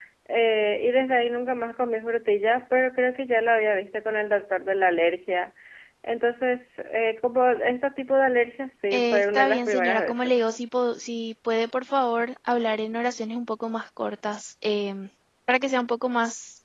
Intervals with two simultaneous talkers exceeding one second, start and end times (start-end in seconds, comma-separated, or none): 8.9-10.3